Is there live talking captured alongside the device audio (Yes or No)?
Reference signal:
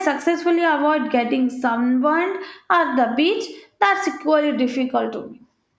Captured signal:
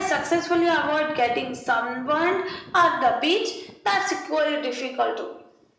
No